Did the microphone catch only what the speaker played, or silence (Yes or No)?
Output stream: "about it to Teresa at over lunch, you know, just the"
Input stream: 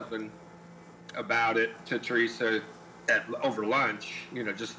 Yes